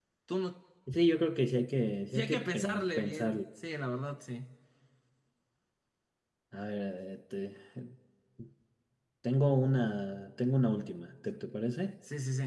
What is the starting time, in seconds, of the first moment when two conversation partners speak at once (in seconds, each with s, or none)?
2.1 s